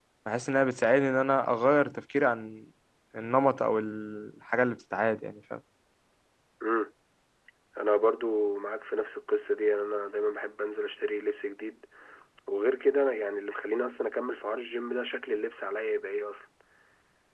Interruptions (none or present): none